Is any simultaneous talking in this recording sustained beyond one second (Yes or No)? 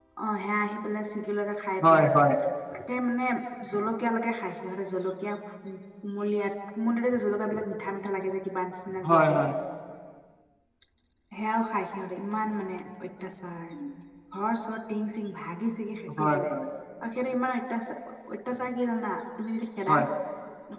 No